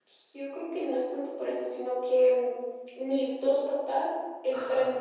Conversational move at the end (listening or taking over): taking over